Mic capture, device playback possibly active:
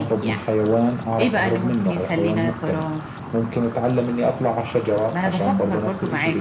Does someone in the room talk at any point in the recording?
No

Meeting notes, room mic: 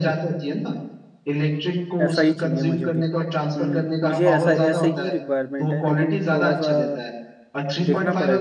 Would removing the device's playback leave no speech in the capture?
No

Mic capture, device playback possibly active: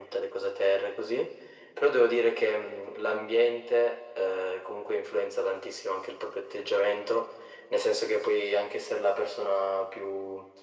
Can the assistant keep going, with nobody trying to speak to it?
Yes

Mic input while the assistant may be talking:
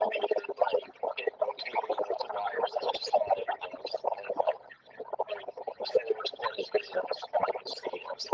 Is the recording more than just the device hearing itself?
No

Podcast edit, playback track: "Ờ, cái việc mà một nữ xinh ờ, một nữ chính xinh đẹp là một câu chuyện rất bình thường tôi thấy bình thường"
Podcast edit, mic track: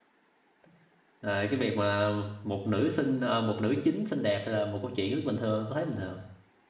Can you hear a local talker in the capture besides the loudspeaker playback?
No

